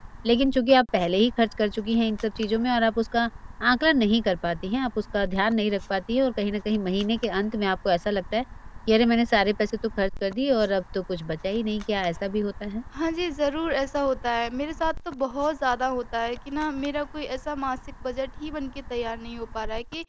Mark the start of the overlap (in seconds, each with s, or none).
none